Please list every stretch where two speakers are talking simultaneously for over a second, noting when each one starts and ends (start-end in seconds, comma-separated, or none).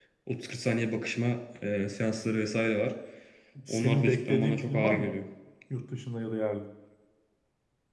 3.7-5.2